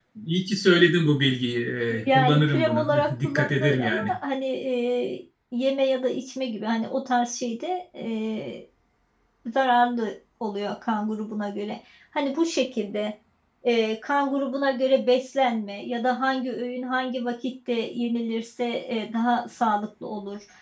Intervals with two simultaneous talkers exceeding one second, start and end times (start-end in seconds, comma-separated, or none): 2.1-4.1